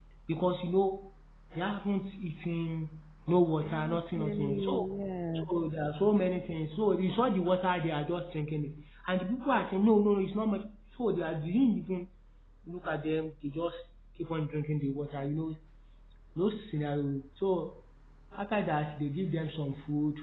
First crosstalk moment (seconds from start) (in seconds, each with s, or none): 3.6 s